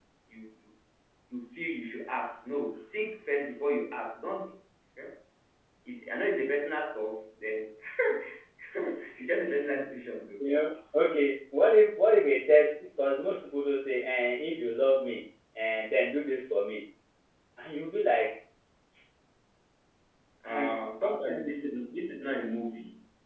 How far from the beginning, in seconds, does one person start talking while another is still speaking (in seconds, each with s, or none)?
20.5 s